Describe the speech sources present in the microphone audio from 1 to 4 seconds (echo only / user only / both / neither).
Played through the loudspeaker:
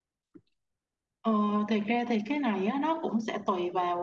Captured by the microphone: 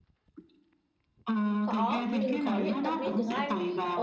both